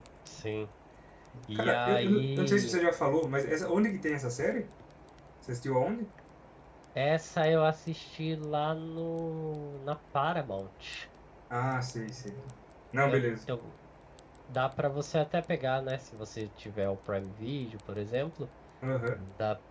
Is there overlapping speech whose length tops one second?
Yes, from 1.6 s

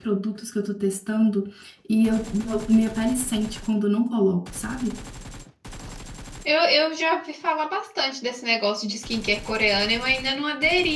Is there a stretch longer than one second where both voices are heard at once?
No

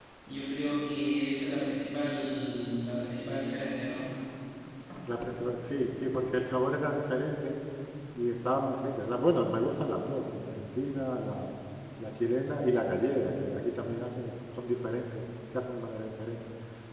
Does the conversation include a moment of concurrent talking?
No

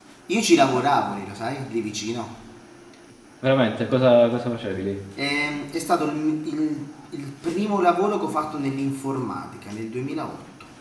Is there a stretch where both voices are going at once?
No

